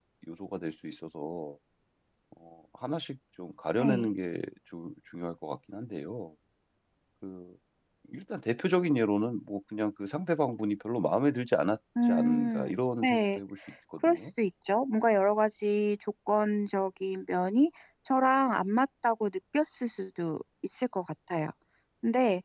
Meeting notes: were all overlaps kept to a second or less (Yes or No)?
No